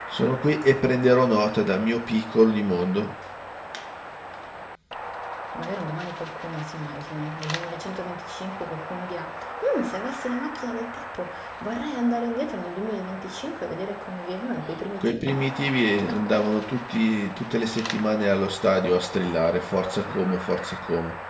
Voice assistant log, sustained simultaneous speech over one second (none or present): none